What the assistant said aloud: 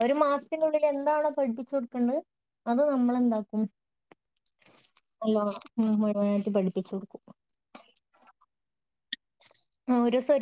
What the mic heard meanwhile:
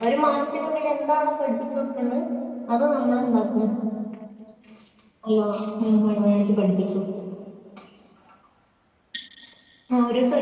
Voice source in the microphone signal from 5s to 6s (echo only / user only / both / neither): echo only